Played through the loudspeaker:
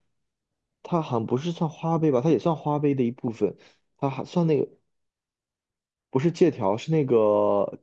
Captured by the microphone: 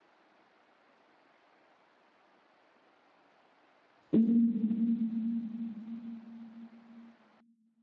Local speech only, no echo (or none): 嗯，